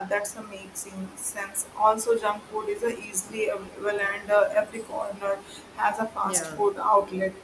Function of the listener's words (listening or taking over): listening